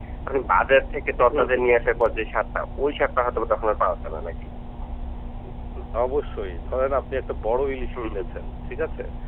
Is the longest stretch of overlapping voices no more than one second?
Yes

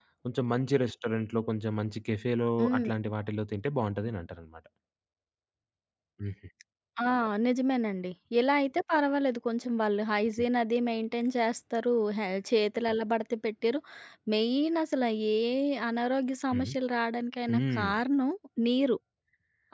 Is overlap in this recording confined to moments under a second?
Yes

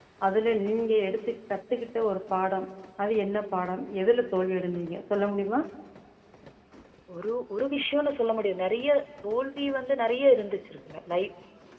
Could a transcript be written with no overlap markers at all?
Yes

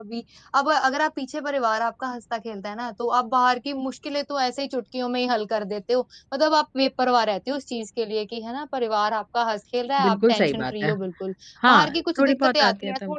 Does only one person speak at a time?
No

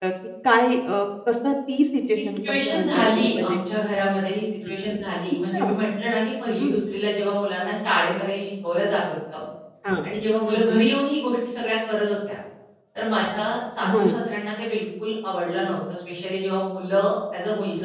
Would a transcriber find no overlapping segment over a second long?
No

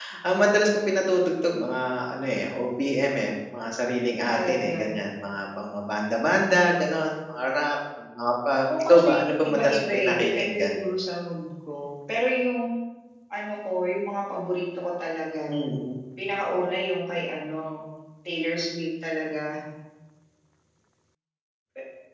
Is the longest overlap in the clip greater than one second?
Yes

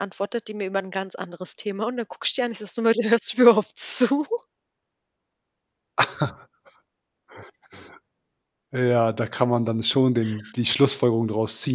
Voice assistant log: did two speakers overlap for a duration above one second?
No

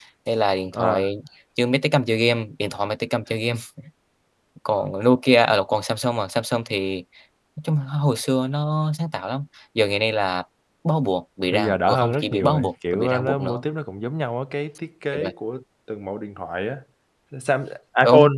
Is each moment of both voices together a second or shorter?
No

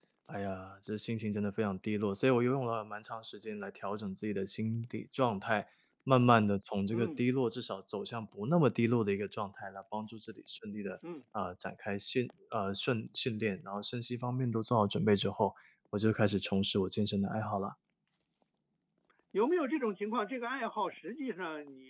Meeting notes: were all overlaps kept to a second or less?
Yes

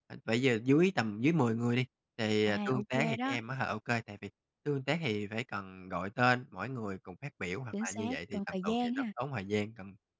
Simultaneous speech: Yes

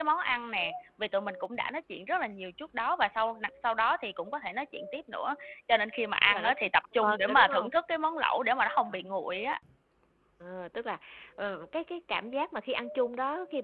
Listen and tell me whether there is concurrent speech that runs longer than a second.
Yes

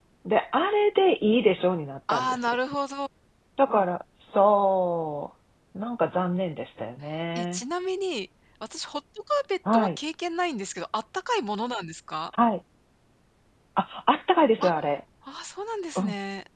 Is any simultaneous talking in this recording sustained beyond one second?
No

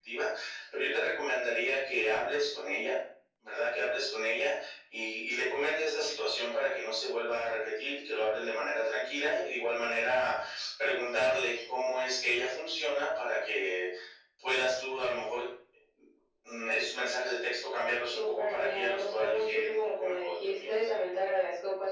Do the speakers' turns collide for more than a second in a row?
Yes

